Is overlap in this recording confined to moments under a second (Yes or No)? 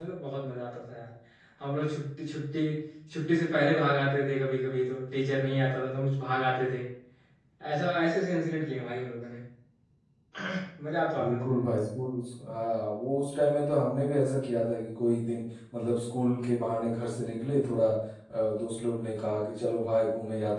Yes